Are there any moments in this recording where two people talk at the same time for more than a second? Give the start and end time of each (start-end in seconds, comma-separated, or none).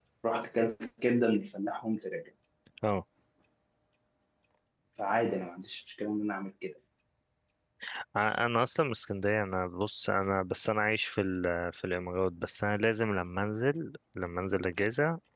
none